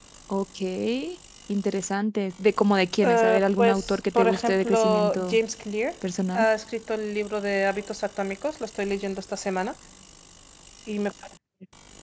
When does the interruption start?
3.0 s

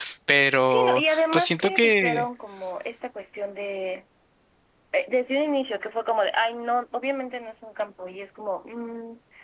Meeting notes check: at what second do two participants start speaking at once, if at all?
0.6 s

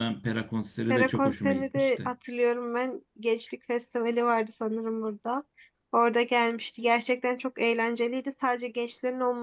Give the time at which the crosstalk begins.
0.9 s

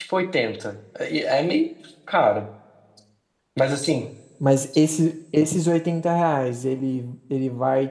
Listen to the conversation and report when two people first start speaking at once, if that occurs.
none

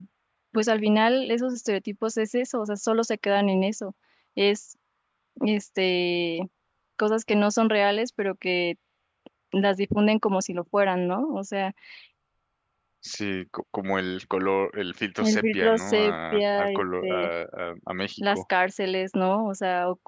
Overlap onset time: 15.2 s

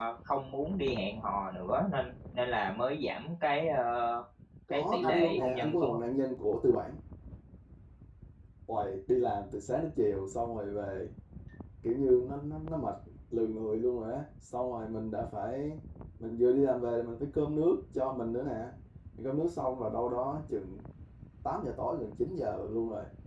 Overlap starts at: 4.7 s

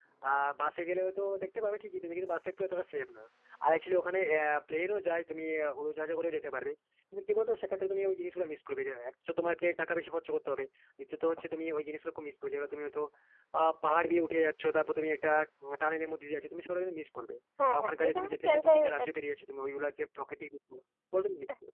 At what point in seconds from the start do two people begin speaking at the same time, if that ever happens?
17.6 s

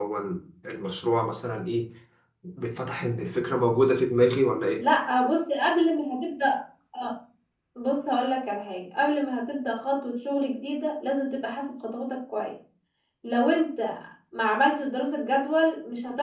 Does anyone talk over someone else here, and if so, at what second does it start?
none

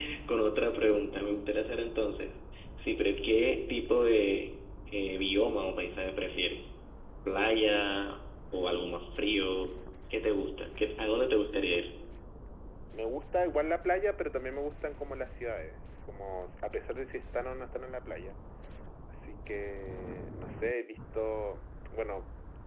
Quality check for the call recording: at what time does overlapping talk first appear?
none

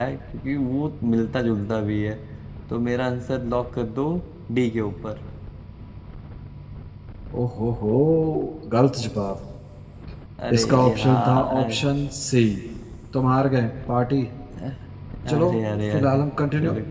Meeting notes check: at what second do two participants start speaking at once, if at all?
10.5 s

